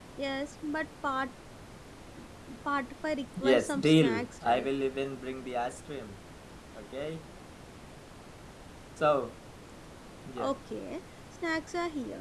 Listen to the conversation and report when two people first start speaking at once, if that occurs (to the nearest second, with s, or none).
3 s